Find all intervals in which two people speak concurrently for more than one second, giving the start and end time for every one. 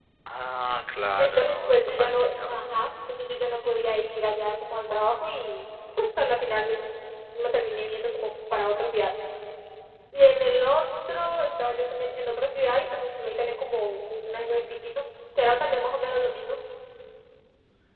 1.2-2.7

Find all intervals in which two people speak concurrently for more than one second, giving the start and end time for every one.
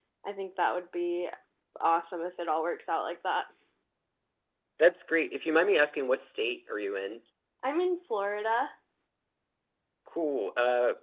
none

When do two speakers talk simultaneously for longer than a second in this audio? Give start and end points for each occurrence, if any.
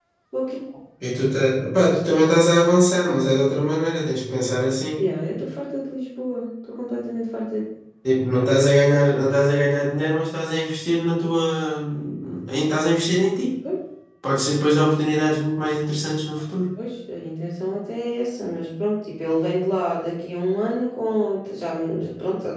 none

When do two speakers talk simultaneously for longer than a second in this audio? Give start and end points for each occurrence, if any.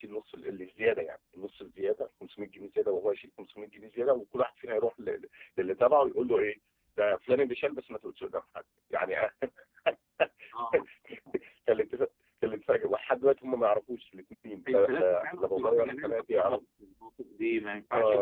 14.7-16.6

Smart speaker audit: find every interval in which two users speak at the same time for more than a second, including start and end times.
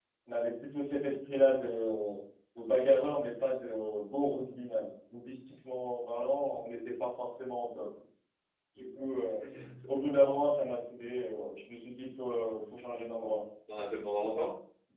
none

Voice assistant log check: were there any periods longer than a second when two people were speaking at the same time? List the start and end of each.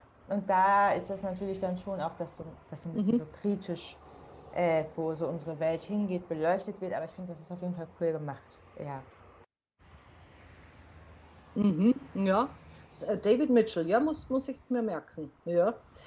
none

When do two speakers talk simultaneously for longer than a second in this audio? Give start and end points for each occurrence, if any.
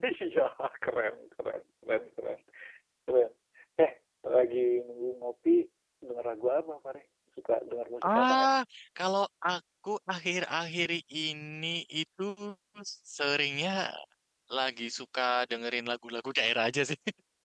none

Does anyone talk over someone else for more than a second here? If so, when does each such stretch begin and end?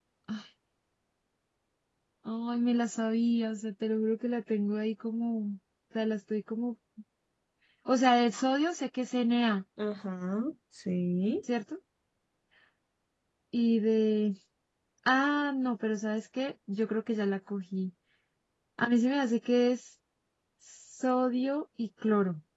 none

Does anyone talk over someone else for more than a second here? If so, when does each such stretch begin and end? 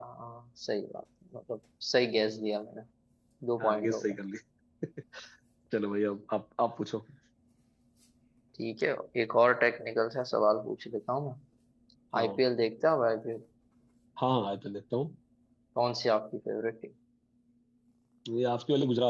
none

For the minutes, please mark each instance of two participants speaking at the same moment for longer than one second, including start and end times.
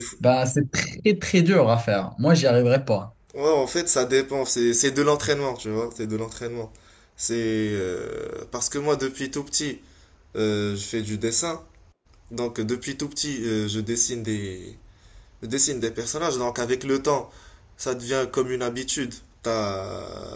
none

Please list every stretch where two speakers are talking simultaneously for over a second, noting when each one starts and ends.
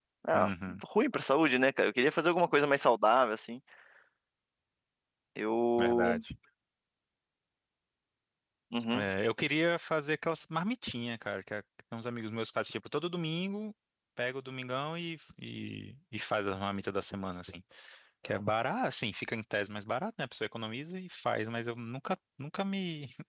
none

